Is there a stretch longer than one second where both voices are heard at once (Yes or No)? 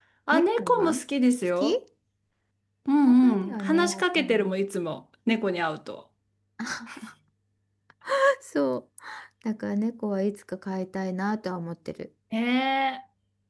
Yes